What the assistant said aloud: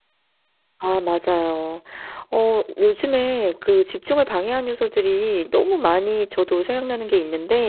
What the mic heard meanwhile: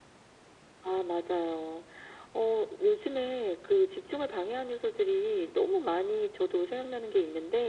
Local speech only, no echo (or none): none